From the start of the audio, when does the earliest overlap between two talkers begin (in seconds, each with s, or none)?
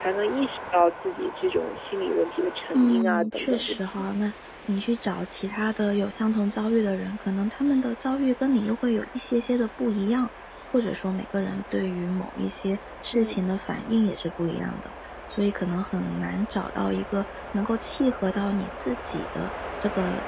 2.7 s